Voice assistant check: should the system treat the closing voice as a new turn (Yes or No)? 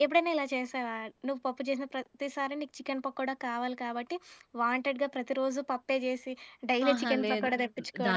Yes